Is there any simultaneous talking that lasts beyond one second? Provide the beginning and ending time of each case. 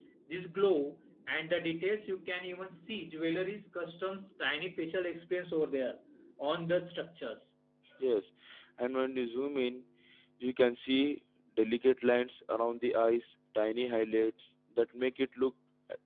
none

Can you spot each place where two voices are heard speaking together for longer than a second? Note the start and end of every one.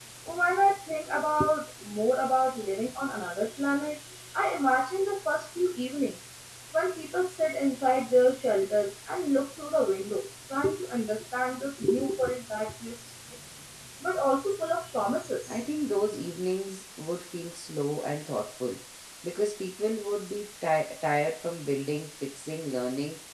none

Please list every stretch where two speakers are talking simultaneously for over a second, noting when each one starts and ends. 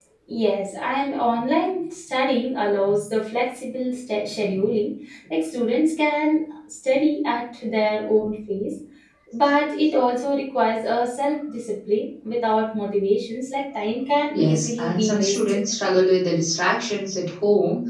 14.3-15.6

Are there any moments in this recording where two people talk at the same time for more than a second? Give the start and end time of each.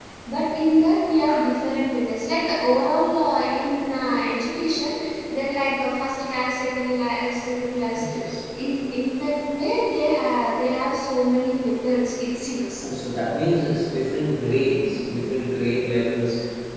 none

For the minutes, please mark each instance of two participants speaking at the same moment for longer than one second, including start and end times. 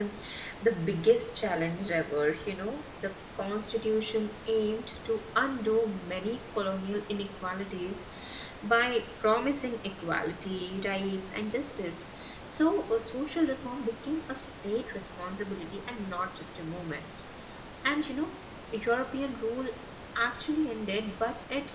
none

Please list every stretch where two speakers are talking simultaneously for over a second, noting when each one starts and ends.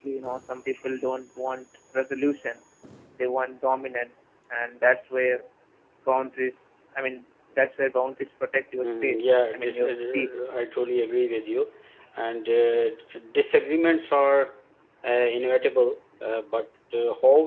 8.8-10.4

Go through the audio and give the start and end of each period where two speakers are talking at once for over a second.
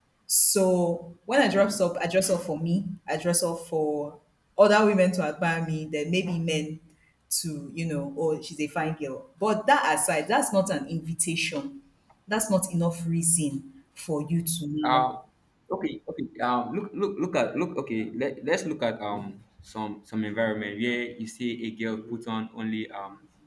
none

